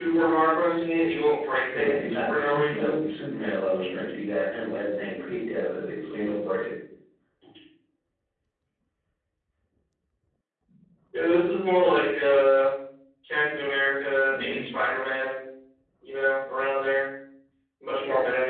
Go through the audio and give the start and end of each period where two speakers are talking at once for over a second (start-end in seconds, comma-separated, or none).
1.7-3.0